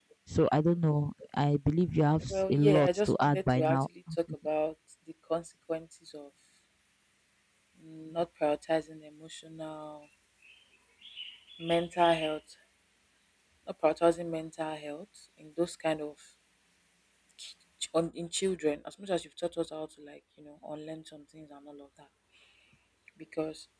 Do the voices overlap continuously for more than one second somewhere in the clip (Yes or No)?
Yes